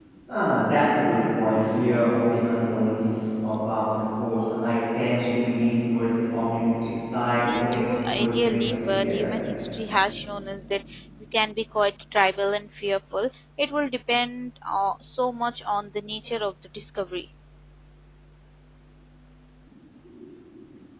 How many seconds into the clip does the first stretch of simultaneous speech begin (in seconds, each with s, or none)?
7.4 s